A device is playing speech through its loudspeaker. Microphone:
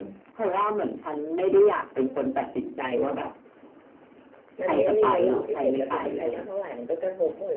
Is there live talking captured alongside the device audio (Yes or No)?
Yes